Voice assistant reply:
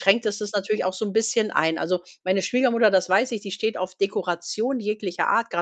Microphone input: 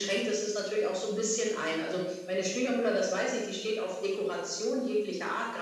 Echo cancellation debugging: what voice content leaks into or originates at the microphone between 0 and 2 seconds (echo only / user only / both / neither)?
echo only